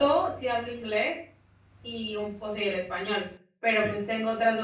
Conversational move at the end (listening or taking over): listening